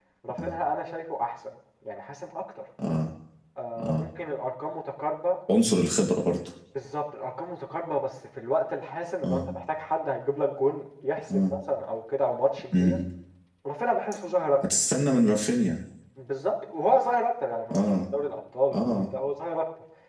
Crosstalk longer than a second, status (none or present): none